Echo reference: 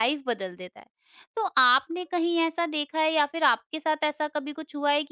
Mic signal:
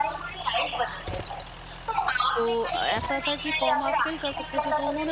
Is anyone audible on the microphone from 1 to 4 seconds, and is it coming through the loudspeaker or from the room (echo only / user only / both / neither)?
both